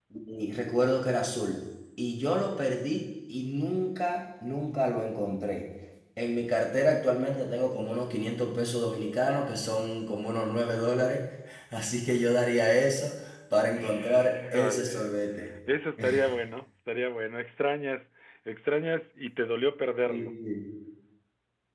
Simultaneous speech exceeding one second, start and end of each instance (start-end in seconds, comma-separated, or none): 13.8-15.1